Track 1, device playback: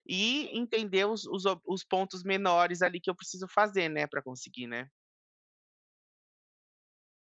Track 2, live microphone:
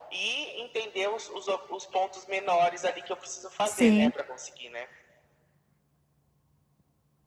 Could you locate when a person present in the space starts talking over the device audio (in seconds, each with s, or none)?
3.6 s